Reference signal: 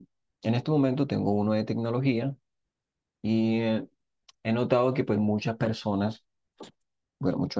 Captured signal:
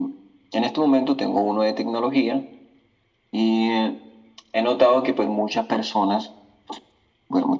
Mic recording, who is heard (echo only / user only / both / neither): echo only